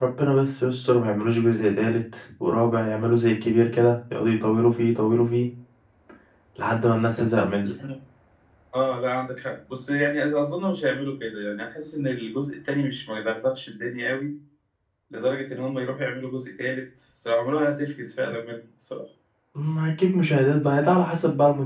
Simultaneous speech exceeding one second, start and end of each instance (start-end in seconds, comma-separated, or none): none